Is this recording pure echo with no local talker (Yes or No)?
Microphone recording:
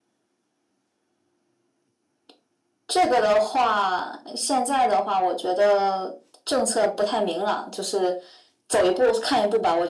Yes